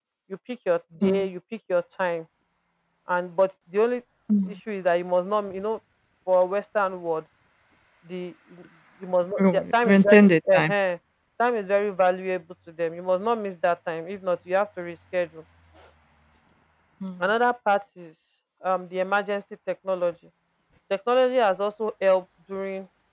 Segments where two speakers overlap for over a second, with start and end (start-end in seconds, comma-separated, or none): 9.4-10.7